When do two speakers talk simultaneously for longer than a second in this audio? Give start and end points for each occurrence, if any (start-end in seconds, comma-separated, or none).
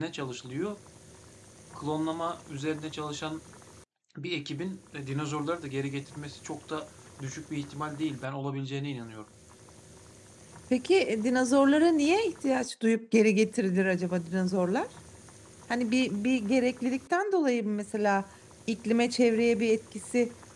none